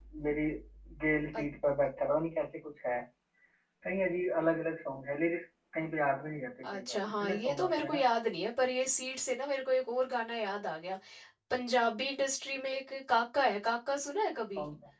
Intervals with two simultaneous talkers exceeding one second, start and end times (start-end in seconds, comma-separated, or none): 6.7-8.0